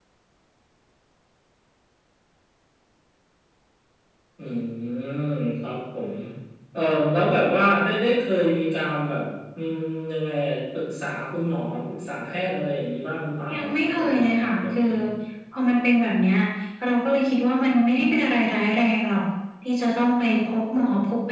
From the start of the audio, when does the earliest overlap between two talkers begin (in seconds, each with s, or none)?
13.5 s